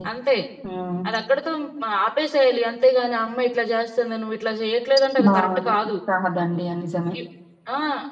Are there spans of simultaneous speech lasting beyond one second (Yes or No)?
No